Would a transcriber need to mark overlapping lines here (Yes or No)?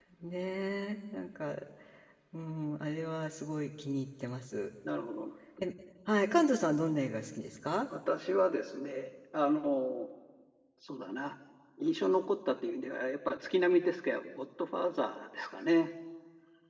No